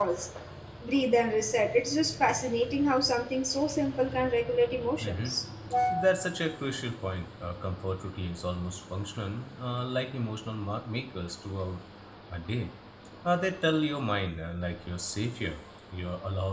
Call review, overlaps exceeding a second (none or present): none